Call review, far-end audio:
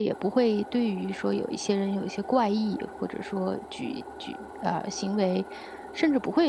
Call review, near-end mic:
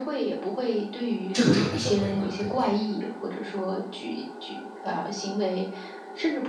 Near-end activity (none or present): present